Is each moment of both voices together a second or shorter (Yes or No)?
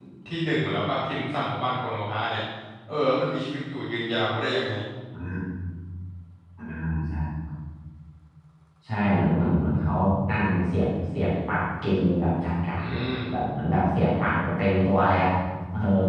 Yes